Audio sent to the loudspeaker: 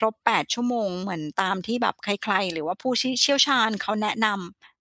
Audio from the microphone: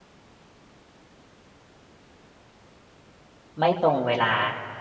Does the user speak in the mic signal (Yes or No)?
Yes